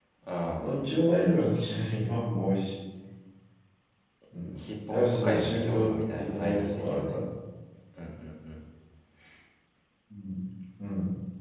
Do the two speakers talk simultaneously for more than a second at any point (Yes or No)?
Yes